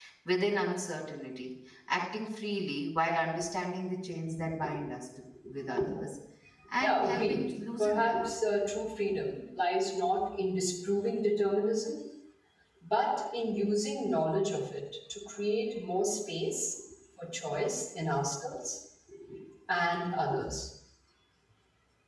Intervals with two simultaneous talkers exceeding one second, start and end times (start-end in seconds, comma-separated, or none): 6.8-8.3